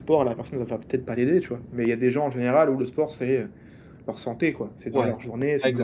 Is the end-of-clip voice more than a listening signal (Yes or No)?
Yes